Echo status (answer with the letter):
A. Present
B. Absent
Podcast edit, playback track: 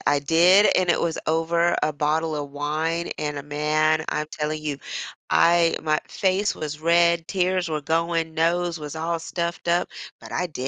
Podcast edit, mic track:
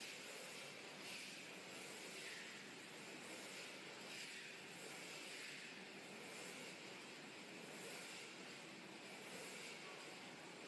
B